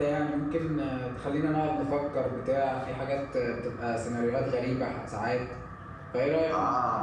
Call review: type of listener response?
taking over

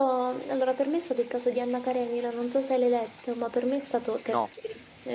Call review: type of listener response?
listening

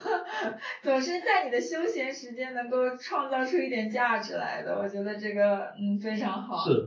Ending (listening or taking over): taking over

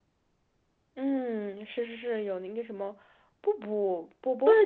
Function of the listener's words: taking over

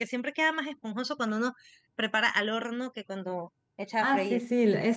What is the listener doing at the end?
taking over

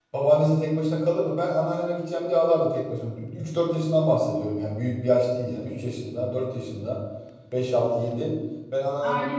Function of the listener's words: listening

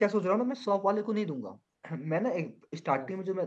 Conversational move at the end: listening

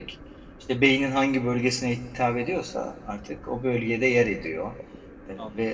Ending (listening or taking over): listening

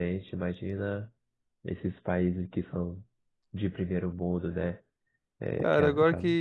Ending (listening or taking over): taking over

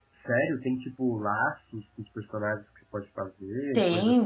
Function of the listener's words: taking over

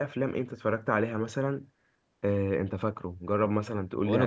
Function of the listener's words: taking over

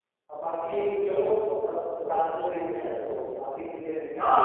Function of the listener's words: taking over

